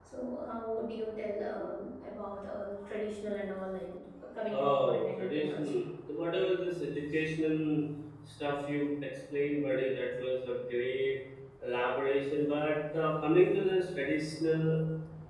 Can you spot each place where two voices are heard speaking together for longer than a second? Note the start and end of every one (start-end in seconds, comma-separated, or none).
4.5-5.7